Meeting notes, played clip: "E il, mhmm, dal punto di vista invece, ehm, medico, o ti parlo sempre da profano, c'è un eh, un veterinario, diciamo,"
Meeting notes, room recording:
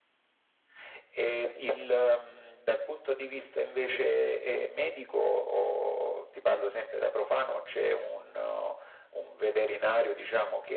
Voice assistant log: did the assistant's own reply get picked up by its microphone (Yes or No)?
Yes